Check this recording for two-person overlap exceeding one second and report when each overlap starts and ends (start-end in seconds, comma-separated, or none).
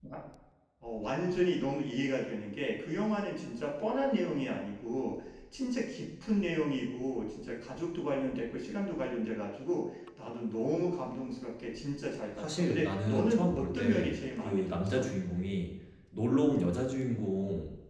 12.4-15.1